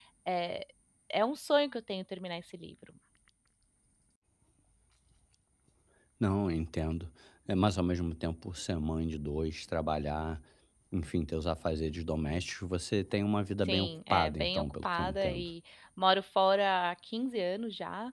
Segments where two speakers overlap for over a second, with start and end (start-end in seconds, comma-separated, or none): 13.7-15.5